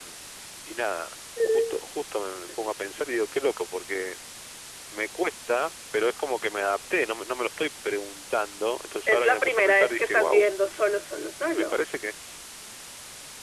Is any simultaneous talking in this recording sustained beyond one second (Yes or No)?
Yes